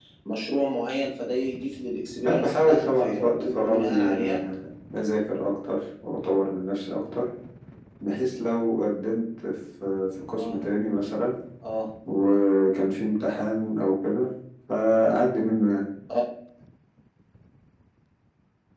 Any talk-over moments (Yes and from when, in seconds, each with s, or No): Yes, from 2.2 s